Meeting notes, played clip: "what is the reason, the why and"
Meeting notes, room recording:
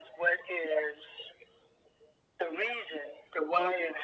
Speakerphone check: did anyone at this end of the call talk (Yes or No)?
No